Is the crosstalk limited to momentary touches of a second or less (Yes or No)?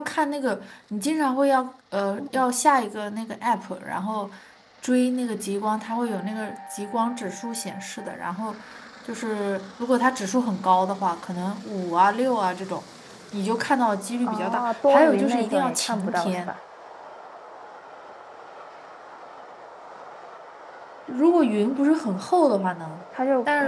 No